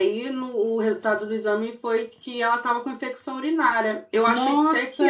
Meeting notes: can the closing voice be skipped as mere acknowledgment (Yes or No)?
No